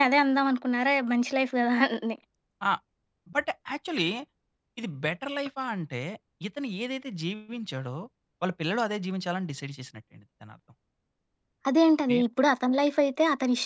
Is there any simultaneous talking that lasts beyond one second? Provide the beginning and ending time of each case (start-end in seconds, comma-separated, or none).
none